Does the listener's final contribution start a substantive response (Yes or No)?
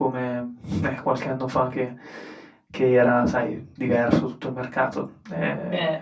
No